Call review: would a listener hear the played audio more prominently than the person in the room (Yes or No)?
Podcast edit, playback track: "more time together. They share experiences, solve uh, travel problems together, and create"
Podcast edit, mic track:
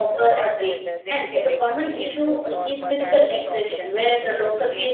No